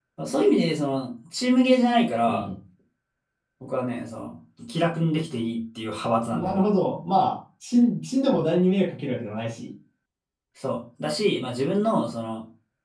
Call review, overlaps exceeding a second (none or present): none